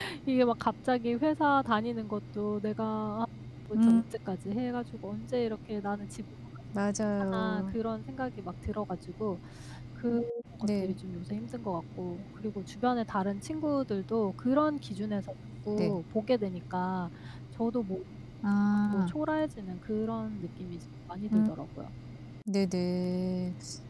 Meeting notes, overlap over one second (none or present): none